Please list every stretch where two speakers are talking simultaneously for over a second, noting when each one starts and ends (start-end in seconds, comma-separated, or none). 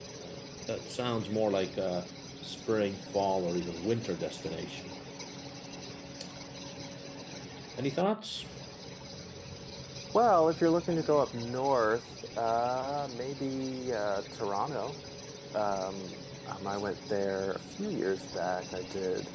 none